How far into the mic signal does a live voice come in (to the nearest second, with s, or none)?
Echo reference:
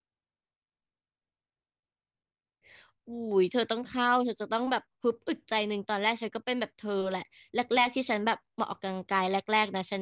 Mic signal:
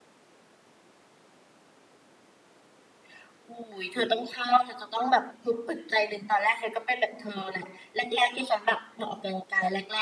none